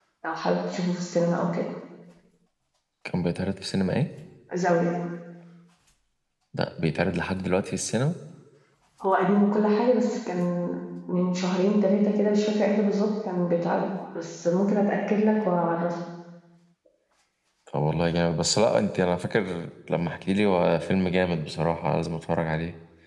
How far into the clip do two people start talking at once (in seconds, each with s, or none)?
none